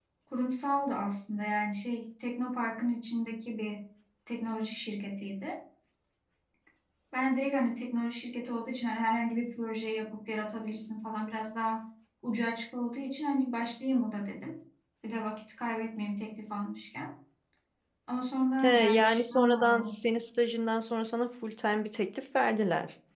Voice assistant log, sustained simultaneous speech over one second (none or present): present